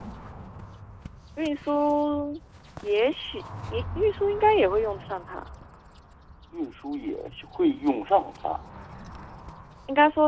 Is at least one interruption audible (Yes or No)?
No